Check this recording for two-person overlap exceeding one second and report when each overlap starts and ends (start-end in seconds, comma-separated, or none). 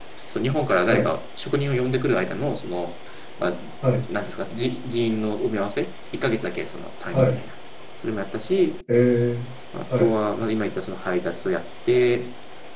none